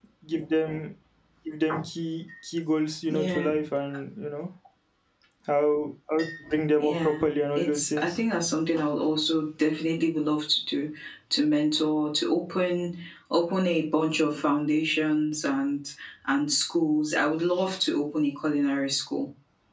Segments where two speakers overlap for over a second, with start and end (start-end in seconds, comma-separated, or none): 6.8-8.2